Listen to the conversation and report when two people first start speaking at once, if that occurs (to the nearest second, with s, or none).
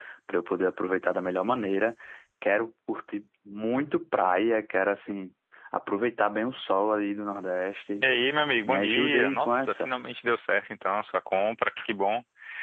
9 s